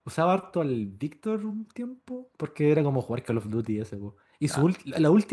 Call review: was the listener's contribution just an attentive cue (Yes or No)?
Yes